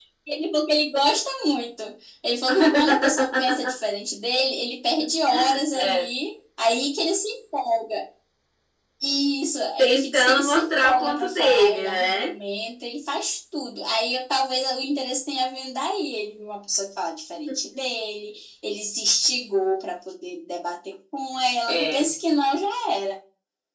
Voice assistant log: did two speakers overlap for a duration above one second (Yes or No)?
Yes